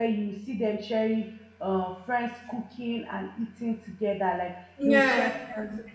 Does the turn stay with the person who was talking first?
Yes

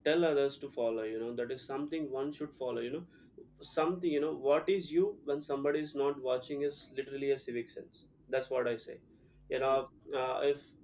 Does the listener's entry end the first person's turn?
No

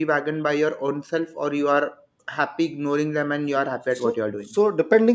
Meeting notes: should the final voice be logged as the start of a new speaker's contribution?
Yes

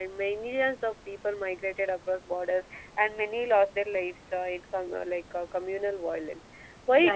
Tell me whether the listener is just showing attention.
Yes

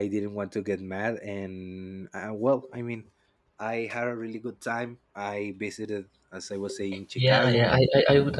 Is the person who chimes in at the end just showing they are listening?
No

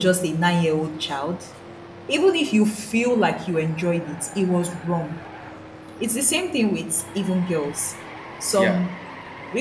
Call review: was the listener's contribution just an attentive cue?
Yes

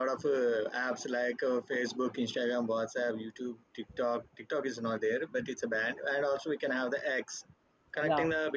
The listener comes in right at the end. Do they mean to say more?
No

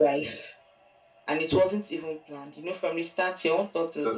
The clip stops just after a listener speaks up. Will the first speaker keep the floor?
No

